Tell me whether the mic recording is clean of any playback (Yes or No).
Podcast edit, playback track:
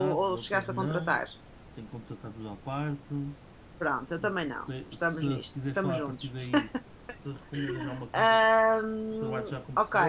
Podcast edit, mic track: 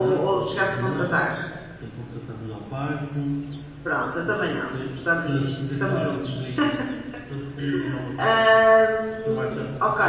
No